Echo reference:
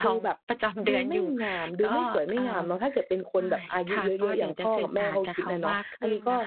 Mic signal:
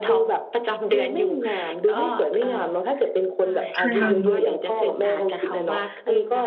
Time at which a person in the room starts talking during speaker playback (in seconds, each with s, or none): 3.8 s